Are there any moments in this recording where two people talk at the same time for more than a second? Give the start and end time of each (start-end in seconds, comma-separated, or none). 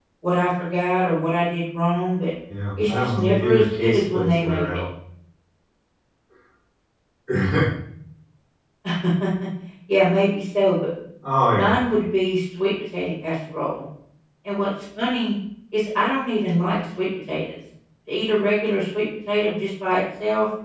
2.8-4.8